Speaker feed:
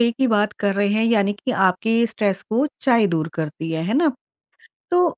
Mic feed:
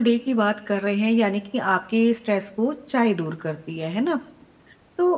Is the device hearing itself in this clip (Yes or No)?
Yes